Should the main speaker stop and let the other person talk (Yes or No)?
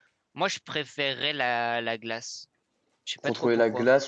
Yes